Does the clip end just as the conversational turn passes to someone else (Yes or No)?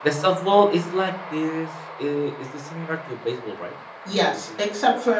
Yes